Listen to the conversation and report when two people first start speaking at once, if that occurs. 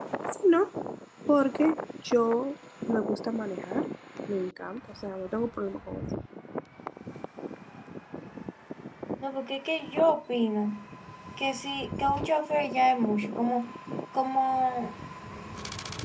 none

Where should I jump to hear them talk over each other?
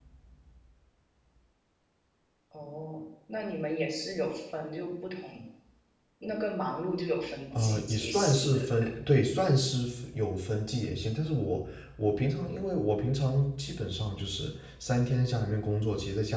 7.5 s

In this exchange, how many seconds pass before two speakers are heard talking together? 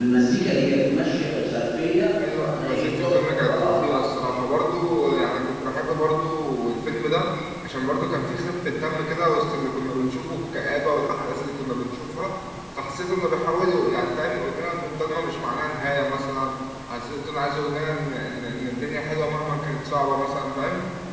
2.2 s

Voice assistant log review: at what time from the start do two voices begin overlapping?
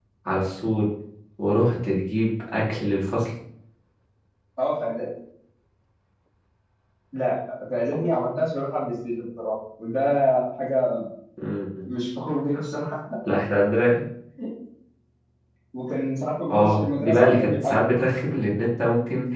16.5 s

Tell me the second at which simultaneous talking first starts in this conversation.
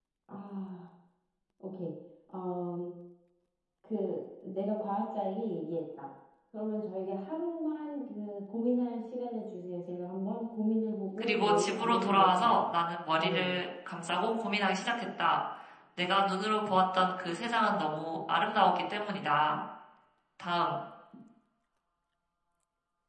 11.2 s

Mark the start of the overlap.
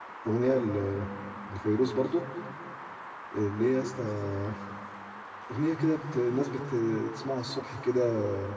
none

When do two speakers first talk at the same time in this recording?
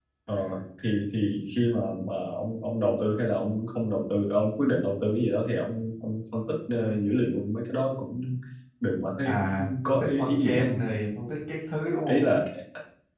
9.2 s

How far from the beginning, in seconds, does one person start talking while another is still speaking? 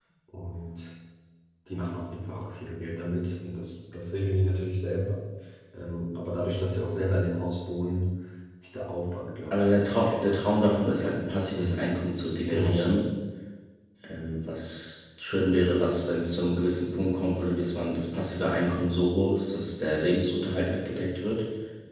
9.5 s

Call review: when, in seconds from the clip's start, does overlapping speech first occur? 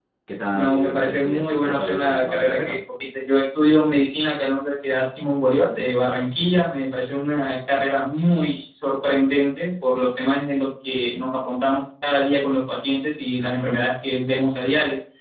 0.5 s

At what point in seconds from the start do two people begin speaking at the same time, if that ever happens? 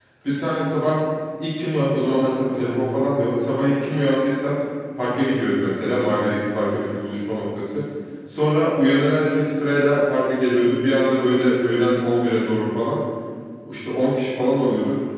none

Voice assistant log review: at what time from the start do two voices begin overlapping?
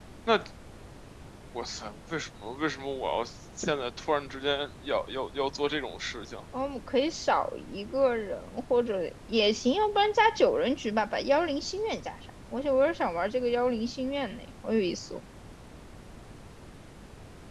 none

